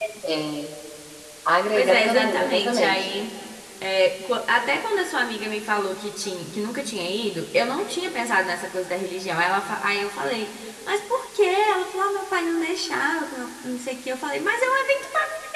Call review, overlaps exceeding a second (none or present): present